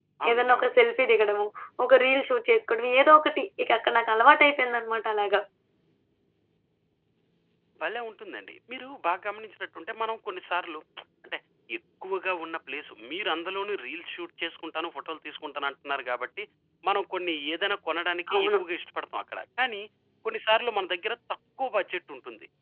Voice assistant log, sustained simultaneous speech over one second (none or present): none